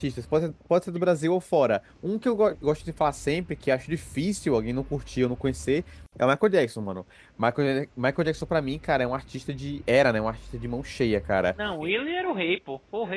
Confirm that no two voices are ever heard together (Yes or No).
Yes